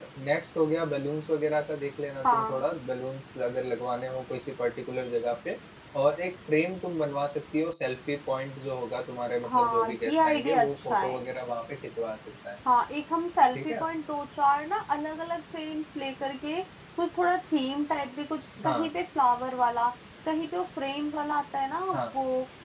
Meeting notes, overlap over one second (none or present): present